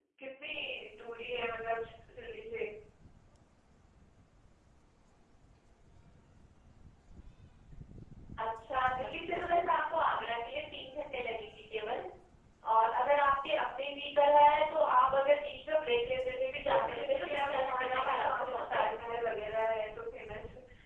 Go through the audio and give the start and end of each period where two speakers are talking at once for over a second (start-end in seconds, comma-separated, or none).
16.6-19.1